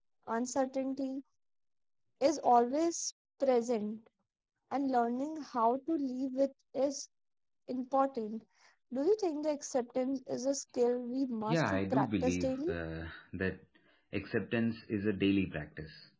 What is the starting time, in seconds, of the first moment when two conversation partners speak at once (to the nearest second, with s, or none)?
11 s